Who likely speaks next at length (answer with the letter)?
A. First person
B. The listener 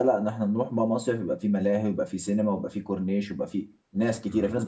B